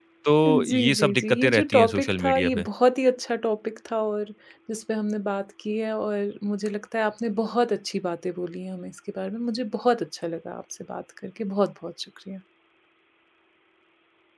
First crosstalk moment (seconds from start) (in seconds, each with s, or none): 0.7 s